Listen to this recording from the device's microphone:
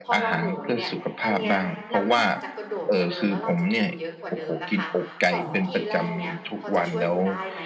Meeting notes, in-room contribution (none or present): present